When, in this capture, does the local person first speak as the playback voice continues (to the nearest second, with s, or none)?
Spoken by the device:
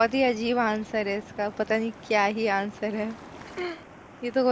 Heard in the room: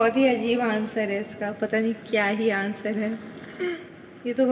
none